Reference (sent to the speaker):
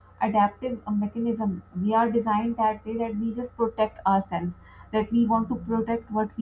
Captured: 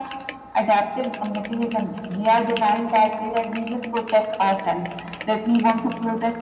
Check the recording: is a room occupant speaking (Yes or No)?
No